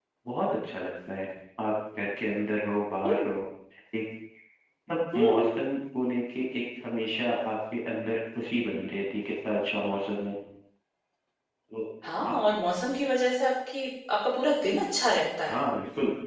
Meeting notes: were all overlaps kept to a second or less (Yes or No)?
Yes